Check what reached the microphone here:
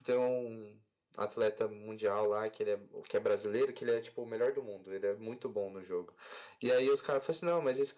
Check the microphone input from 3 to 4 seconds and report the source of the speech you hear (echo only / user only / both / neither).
echo only